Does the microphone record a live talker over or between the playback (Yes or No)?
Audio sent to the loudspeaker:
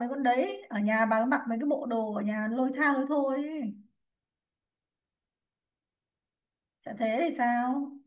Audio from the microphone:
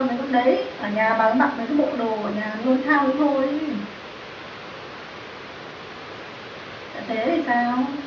No